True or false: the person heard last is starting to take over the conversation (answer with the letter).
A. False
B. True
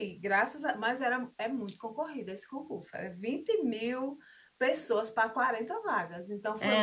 B